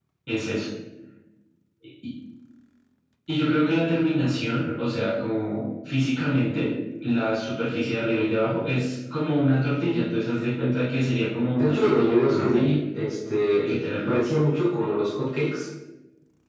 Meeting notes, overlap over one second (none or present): present